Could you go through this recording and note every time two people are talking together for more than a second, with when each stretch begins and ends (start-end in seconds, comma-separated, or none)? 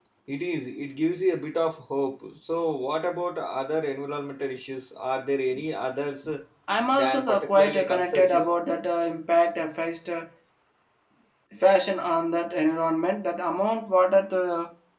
6.9-8.5